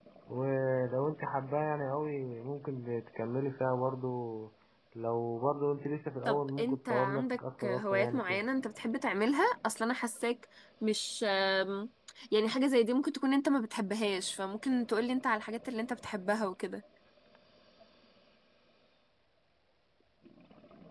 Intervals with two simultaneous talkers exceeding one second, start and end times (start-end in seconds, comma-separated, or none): 6.2-8.4